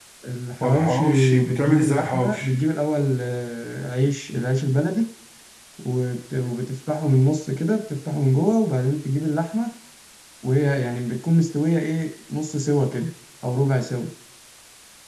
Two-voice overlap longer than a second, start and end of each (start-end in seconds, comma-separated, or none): 0.6-2.5